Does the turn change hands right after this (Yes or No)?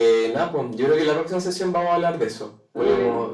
No